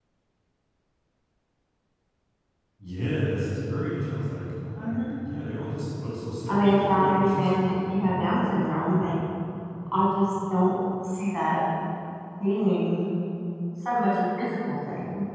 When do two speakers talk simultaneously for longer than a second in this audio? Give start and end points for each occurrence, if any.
6.5-8.2

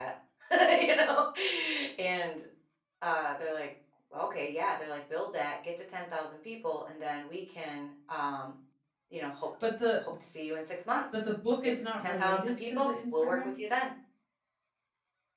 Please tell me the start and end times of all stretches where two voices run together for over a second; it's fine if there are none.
11.6-13.5

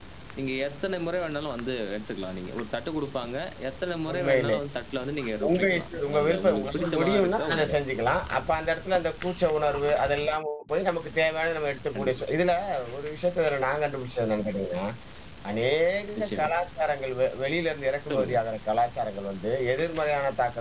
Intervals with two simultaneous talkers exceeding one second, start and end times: 5.4-7.7

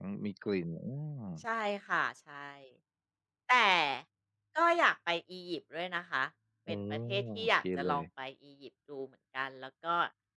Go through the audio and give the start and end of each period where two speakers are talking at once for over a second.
6.7-8.0

